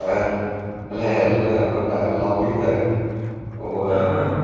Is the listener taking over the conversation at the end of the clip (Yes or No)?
No